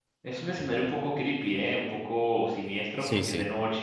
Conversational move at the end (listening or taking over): listening